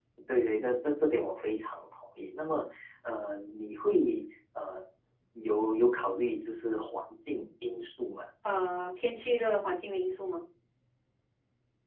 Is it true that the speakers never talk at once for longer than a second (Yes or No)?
Yes